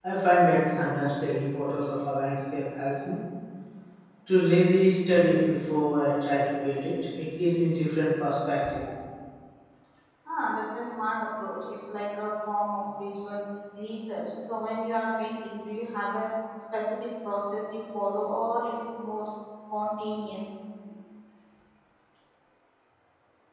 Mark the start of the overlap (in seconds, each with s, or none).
none